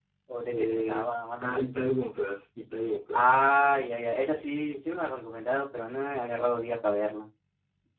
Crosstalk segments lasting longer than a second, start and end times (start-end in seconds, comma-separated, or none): 0.5-1.7